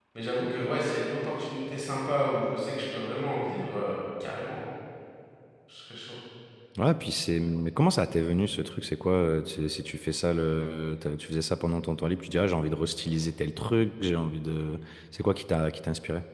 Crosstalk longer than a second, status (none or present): none